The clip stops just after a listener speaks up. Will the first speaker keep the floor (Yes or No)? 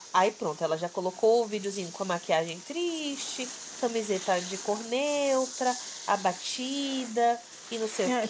No